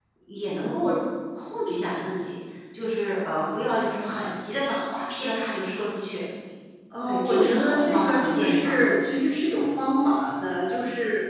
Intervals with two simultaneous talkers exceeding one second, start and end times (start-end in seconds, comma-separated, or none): 7.1-8.8